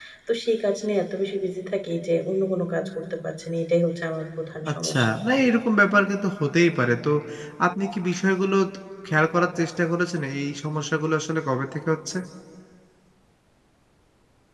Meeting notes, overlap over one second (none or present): none